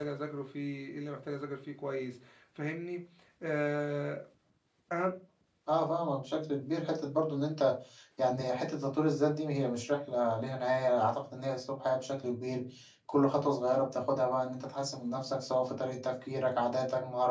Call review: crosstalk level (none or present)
none